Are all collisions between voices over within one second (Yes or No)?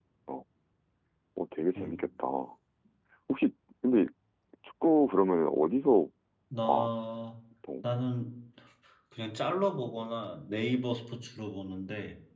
Yes